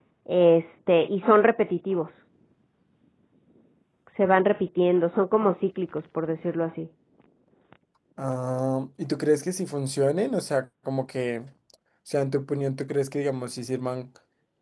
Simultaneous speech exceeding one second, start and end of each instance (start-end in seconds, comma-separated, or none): none